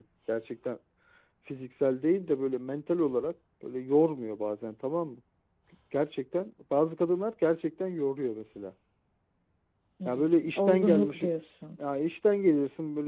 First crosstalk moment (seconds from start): 10.0 s

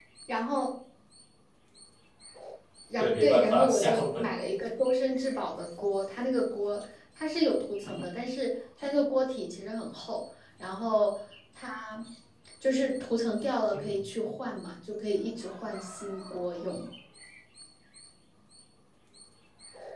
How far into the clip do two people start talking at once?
3.0 s

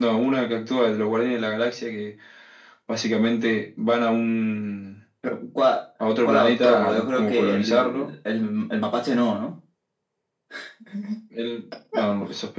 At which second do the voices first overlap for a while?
6.2 s

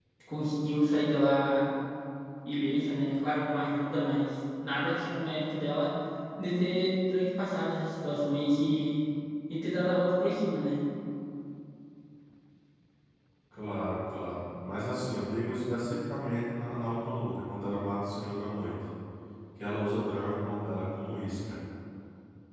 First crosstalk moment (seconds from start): none

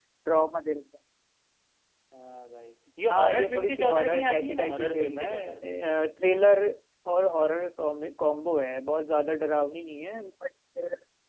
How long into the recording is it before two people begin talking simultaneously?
3.1 s

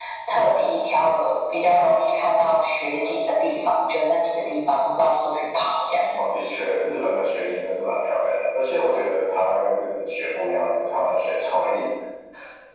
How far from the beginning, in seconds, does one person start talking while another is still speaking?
none

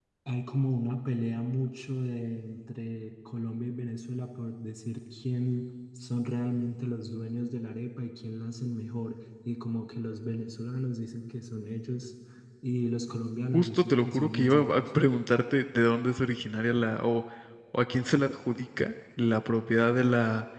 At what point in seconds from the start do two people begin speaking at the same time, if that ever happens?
13.5 s

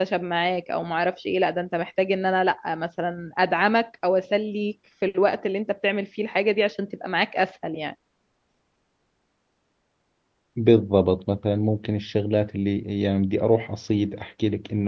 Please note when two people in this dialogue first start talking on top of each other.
none

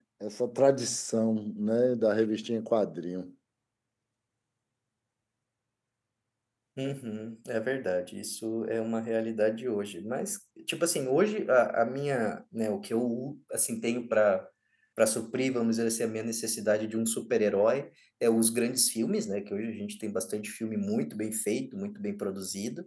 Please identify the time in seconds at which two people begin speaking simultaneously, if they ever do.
none

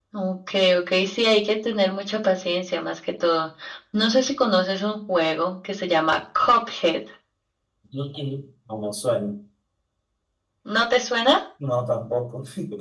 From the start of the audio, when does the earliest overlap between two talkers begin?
none

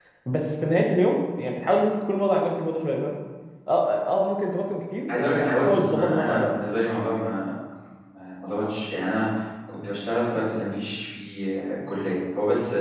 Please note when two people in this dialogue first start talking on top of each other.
5.1 s

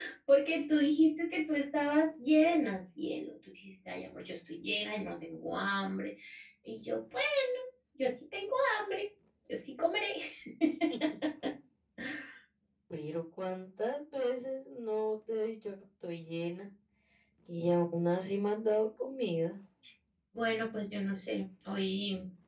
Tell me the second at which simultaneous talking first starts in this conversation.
none

